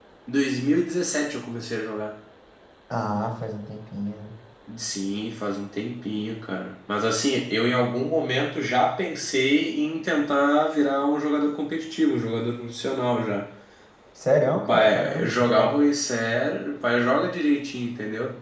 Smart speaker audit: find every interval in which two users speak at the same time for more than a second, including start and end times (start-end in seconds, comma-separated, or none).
14.4-15.8